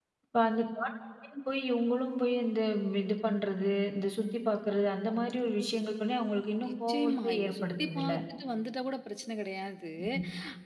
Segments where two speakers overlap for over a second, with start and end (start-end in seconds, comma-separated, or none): 6.7-8.1